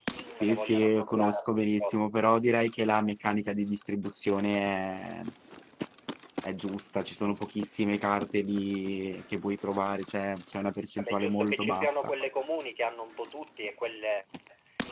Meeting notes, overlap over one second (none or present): present